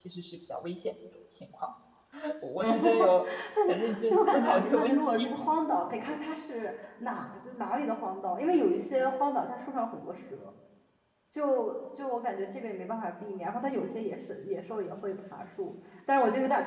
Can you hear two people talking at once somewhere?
Yes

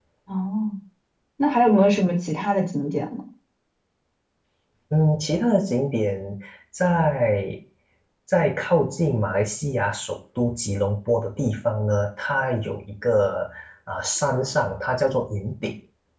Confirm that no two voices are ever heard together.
Yes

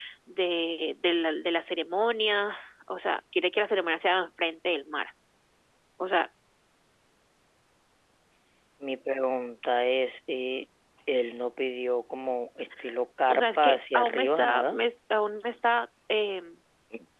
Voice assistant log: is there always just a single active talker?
No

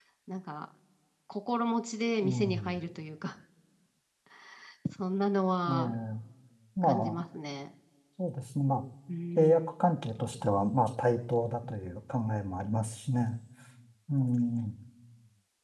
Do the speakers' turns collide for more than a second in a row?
No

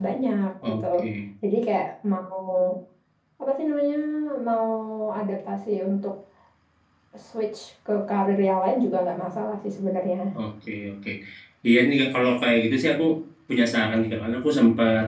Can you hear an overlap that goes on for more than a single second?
No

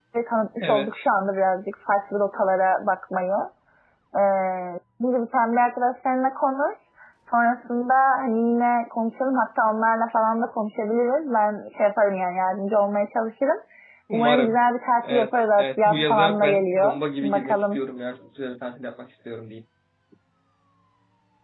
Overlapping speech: Yes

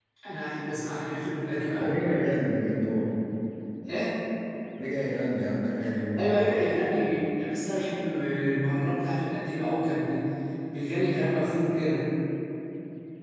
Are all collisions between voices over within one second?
Yes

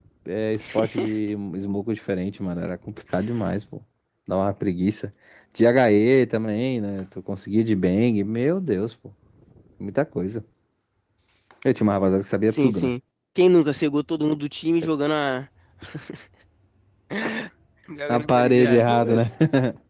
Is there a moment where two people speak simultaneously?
Yes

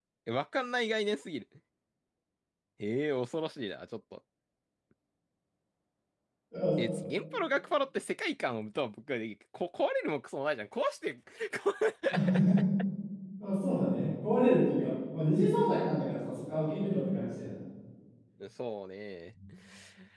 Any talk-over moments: No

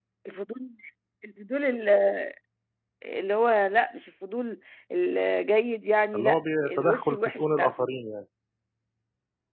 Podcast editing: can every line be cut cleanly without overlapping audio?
No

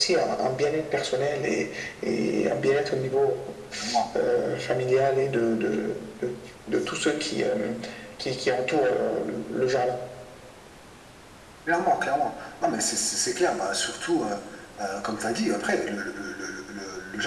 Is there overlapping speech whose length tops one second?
No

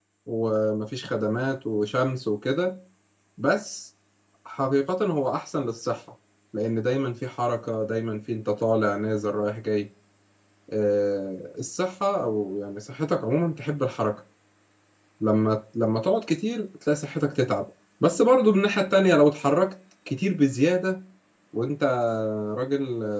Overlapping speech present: No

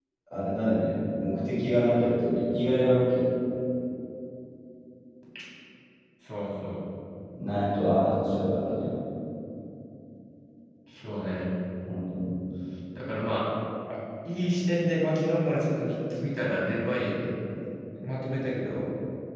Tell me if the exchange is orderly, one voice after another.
Yes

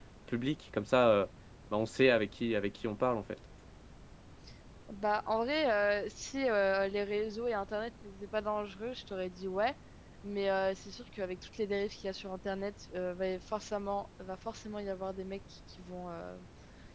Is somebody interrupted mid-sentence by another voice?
No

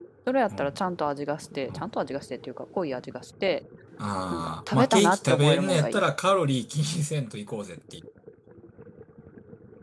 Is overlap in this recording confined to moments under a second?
No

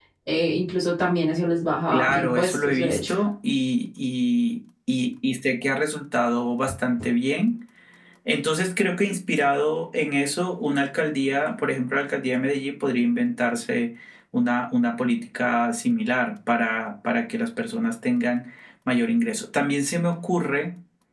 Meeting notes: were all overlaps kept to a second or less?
No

